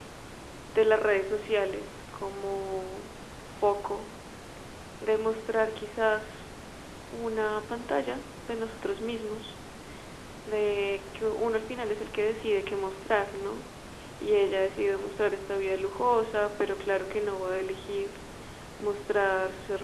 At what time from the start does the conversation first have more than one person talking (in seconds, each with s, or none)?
none